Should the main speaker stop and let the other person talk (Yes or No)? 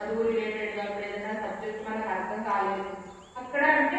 No